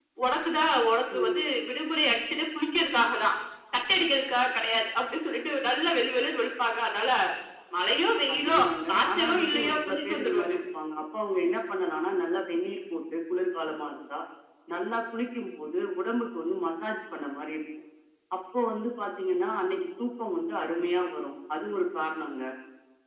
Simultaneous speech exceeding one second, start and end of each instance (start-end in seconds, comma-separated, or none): 8.3-10.6